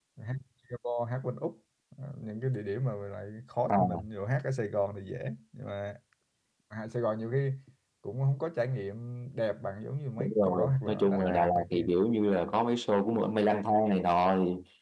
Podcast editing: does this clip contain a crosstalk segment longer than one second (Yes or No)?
Yes